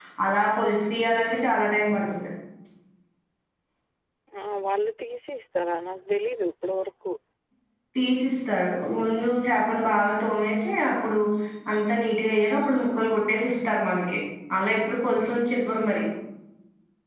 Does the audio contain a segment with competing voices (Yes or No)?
No